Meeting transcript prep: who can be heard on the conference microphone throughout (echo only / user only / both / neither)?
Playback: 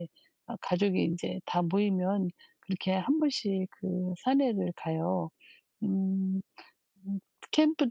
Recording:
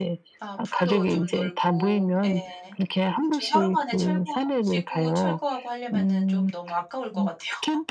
both